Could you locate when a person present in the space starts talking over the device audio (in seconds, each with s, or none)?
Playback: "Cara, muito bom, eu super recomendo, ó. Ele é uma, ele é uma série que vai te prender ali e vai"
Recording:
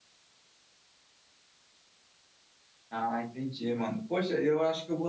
2.9 s